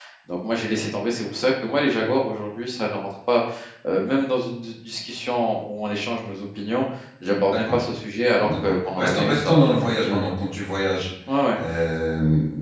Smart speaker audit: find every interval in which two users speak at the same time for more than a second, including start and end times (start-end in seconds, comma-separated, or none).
8.4-10.2